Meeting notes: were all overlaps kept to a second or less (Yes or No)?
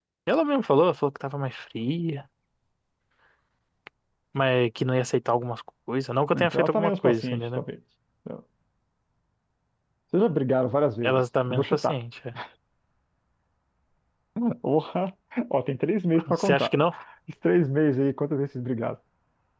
No